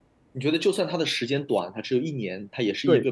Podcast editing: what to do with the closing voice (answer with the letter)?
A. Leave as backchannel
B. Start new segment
B